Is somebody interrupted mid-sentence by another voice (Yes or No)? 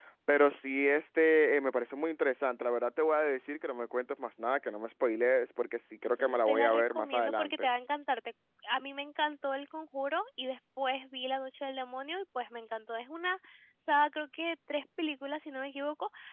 Yes